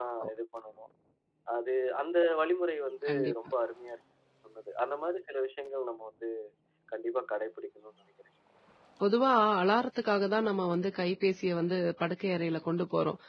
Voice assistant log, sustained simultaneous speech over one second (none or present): none